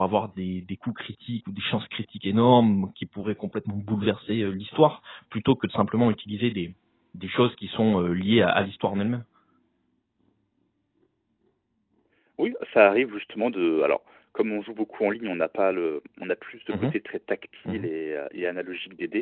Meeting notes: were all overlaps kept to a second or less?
Yes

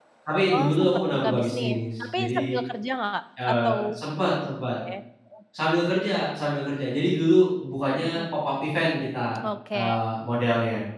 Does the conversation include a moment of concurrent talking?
Yes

